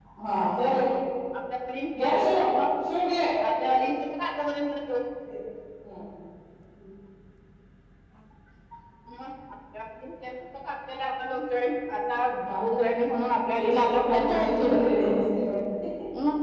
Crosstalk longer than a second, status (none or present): present